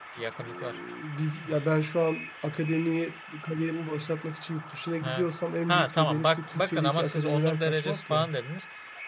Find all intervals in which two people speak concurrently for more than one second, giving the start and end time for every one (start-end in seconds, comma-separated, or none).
5.7-8.3